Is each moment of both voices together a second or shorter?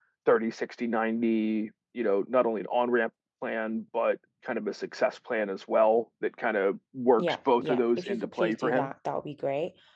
No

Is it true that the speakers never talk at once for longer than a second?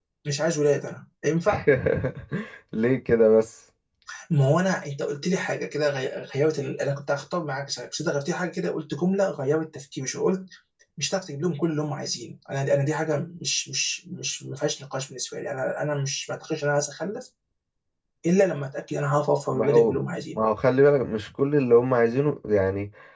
Yes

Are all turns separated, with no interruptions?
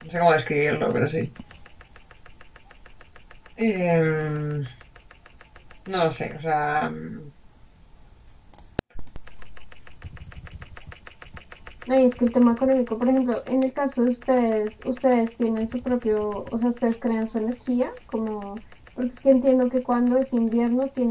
Yes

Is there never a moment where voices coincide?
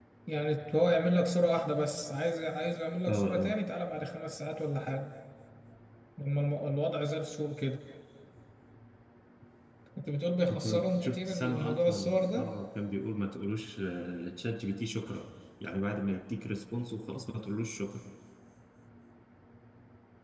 No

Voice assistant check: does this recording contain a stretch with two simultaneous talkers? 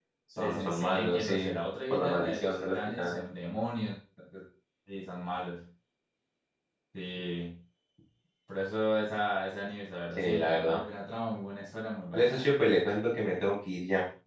Yes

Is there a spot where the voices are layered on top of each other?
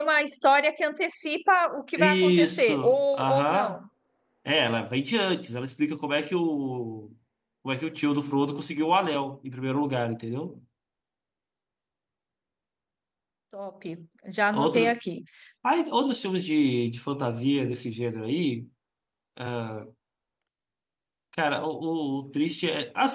Yes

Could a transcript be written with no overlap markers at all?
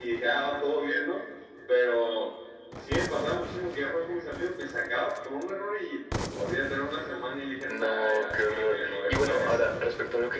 No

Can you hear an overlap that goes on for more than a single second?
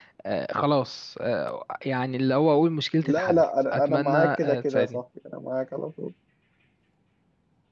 Yes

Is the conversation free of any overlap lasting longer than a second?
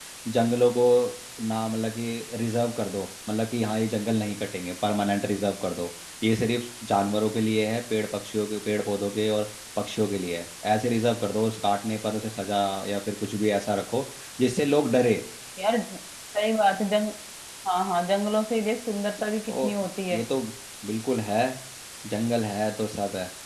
Yes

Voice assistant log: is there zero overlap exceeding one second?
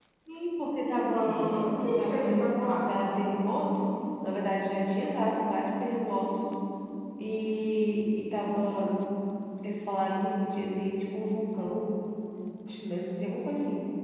No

